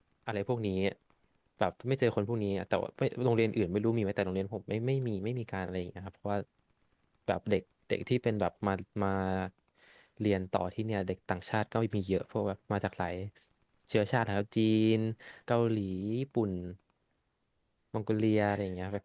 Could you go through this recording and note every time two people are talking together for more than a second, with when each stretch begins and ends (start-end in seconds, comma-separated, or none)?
none